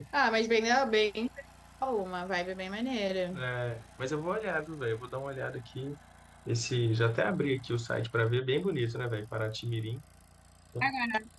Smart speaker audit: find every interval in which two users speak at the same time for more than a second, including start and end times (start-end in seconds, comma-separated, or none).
none